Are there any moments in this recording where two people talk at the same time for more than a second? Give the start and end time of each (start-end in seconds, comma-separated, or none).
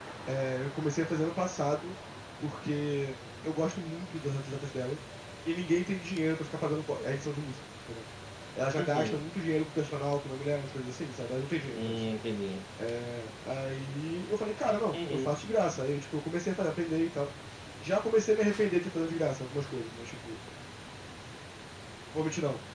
none